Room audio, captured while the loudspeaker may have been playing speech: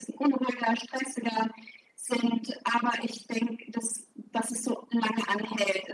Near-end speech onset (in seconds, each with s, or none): none